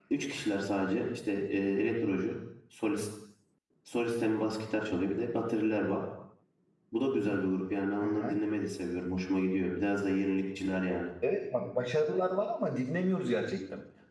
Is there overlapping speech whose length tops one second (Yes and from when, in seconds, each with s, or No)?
No